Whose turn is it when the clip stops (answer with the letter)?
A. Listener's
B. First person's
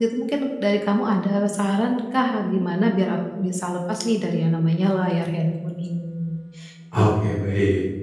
A